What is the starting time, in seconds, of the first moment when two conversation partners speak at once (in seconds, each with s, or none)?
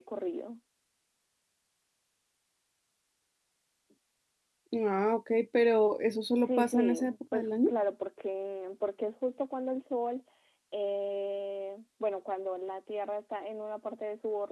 6.4 s